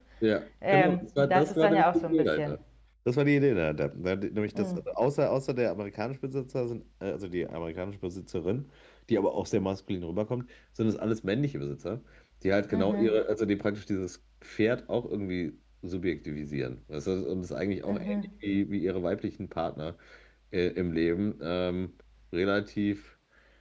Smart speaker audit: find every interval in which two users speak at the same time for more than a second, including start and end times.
0.7-2.6

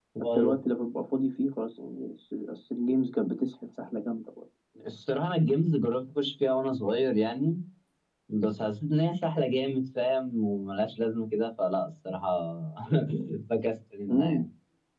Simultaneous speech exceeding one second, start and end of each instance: none

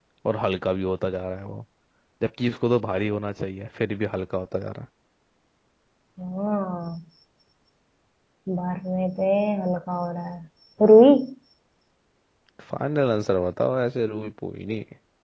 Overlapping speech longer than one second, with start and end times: none

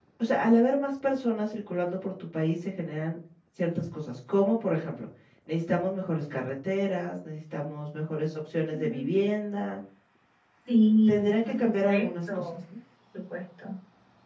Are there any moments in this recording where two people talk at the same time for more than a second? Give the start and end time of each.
11.1-12.4

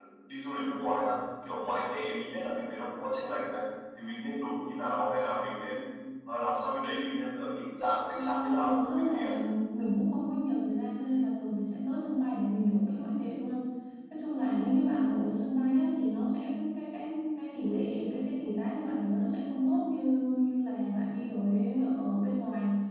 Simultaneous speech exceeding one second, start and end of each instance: 8.1-9.3

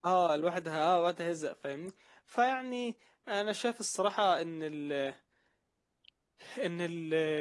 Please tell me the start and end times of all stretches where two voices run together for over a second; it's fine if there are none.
none

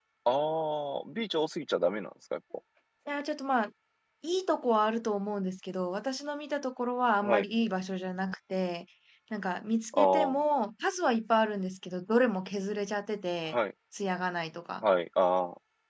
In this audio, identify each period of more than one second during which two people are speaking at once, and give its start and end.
none

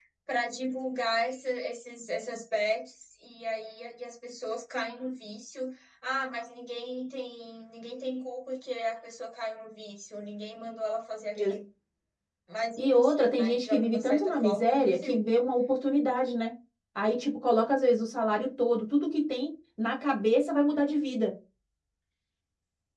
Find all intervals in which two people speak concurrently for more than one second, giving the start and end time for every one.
12.8-15.2

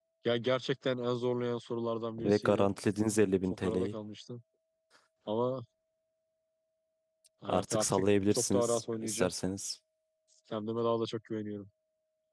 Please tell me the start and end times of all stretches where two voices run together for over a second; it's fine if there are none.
7.5-9.3

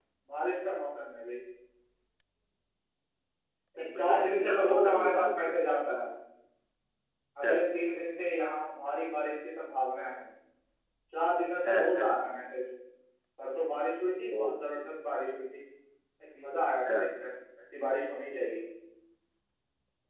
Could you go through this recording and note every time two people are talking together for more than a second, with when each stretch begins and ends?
4.0-5.5

